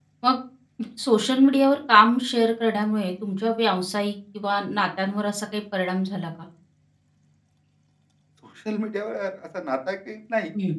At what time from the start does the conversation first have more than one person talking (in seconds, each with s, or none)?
none